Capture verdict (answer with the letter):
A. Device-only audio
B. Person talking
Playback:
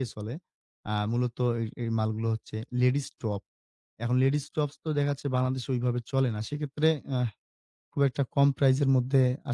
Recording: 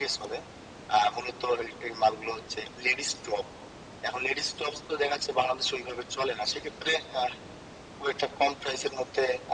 A